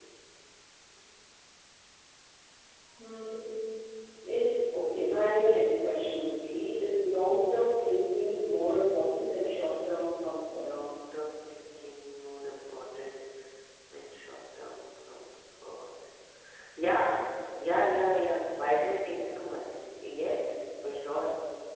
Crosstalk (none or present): present